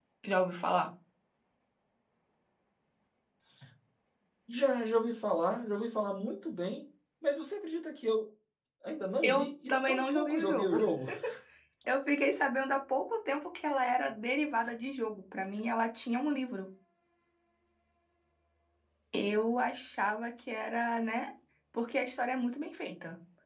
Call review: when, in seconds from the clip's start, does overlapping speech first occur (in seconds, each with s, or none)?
9.2 s